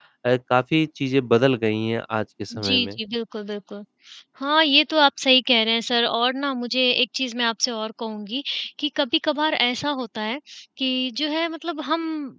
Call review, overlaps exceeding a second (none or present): none